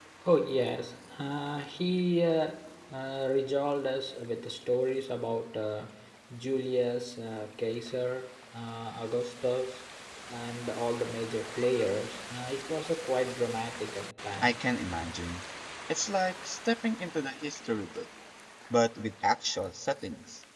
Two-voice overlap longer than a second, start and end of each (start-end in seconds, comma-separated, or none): none